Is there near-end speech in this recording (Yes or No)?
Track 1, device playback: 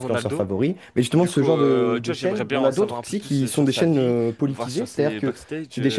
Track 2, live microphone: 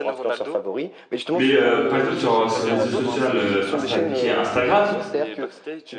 Yes